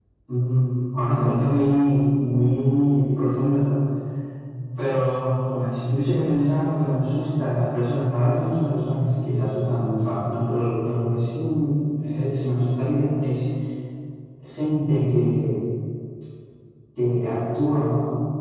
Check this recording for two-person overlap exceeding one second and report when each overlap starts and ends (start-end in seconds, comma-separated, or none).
none